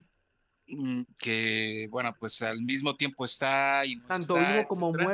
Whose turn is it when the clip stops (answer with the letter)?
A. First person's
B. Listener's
B